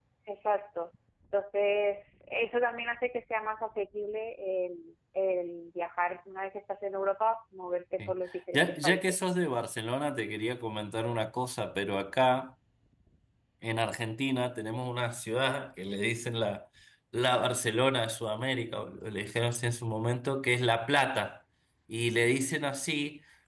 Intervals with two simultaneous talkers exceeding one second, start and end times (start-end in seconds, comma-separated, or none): 8.0-9.2